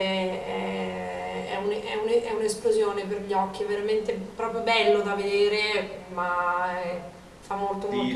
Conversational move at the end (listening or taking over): taking over